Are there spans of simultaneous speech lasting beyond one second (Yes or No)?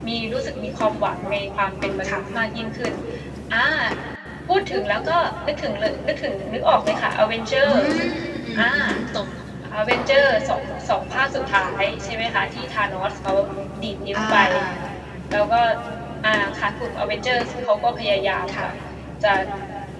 No